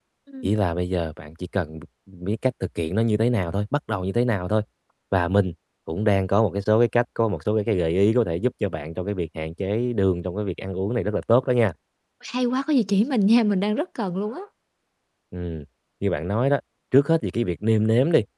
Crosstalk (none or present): none